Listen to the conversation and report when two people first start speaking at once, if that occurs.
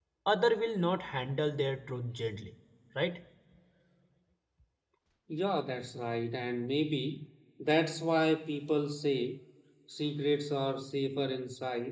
none

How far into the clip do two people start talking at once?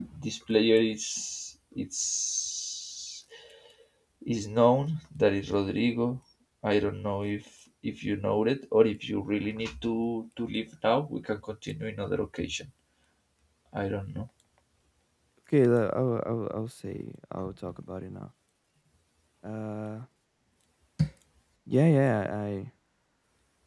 none

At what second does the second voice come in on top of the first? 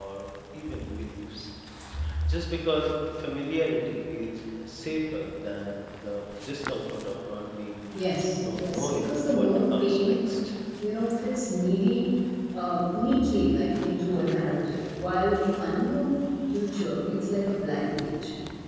8.4 s

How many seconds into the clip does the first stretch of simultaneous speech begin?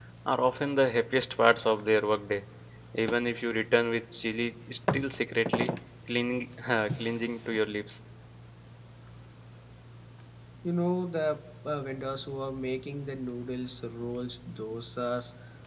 none

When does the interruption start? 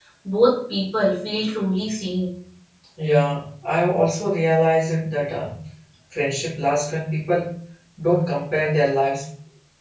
none

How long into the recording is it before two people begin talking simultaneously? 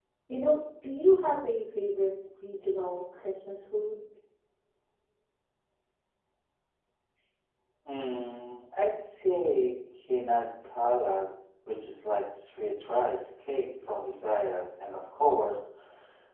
none

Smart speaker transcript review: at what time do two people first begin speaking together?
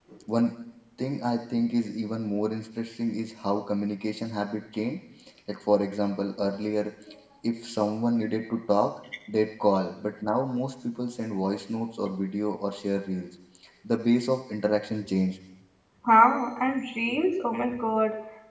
none

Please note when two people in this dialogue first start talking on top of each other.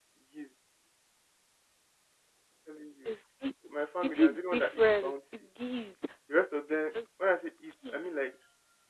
4.0 s

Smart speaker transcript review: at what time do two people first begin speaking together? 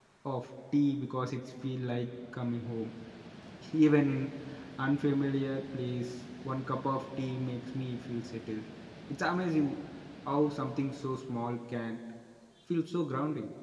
none

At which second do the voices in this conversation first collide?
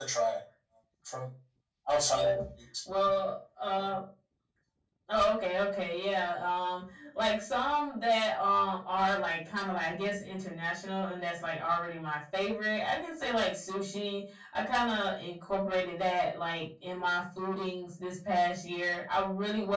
none

